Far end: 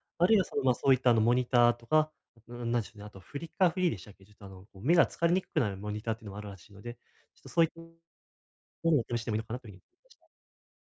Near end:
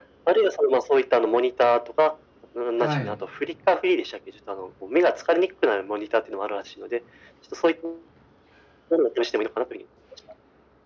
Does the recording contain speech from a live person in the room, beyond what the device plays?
Yes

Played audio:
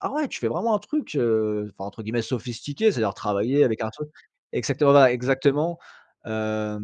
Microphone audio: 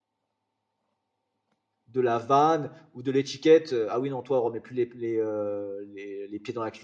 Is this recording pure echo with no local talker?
No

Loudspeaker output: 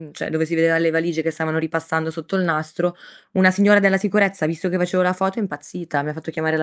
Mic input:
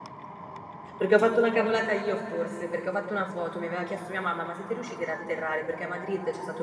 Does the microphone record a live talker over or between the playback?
Yes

